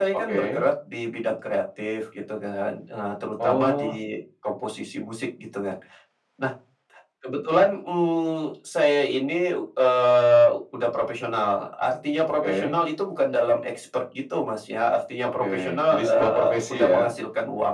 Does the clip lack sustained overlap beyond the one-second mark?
No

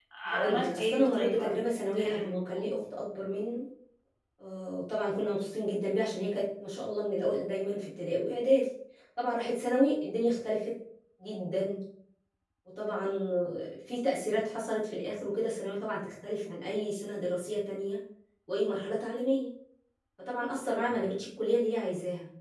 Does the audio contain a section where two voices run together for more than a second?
Yes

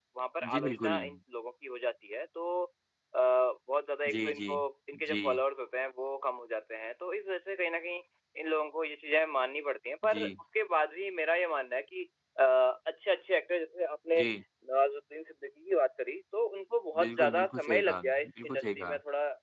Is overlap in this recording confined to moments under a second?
No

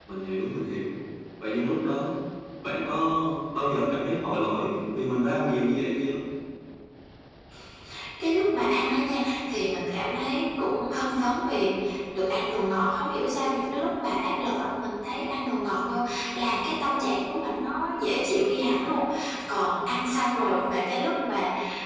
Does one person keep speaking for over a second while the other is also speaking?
No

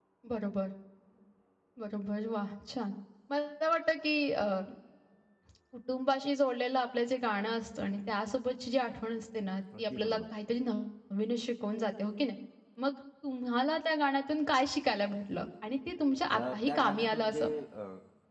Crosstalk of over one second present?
Yes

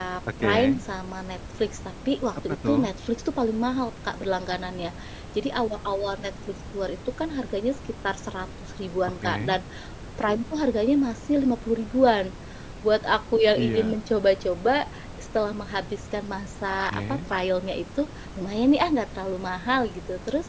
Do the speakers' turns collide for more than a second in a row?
No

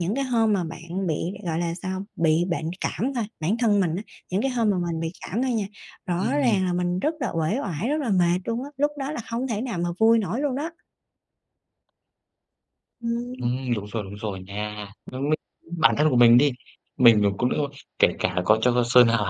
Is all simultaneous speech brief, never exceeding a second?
Yes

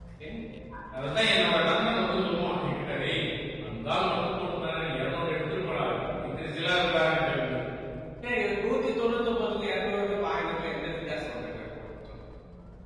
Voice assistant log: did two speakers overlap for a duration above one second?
No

